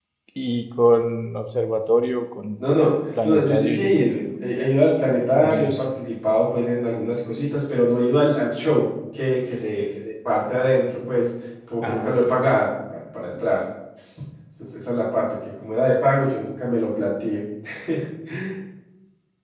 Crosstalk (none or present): present